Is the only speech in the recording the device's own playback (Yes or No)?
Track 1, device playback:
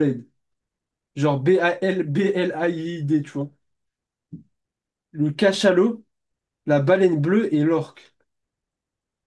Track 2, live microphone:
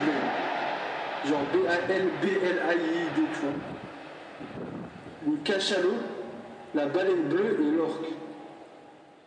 Yes